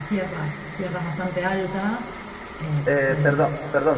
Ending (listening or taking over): taking over